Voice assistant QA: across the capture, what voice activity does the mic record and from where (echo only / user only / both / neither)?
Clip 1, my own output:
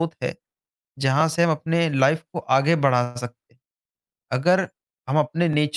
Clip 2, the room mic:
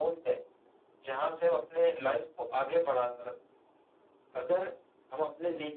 echo only